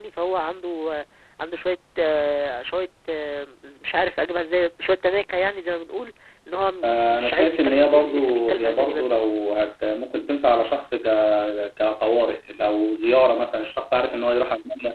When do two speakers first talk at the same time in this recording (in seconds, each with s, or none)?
6.8 s